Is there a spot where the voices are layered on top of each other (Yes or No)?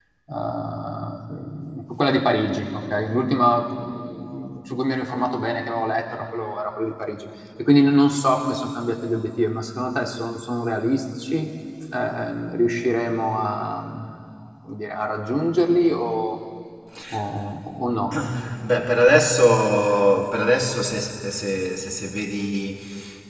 No